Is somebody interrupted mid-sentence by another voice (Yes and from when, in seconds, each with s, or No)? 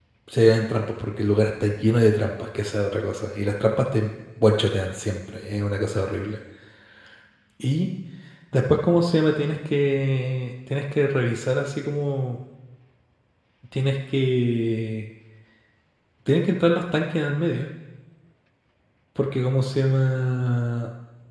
No